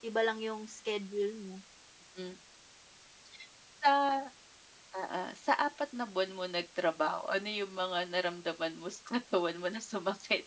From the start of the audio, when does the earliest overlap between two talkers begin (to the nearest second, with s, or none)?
none